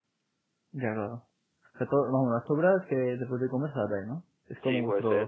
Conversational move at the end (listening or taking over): taking over